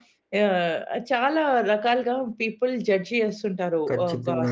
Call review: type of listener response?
listening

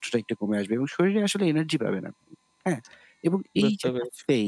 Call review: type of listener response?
listening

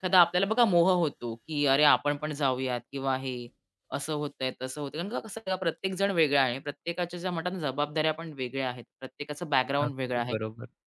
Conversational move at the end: listening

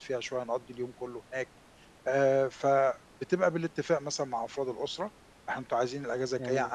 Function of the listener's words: listening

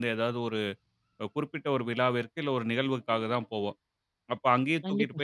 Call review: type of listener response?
listening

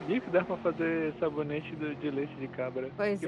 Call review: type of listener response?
taking over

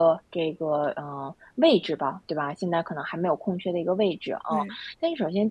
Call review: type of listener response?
listening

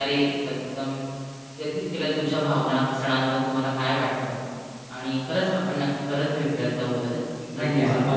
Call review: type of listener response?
taking over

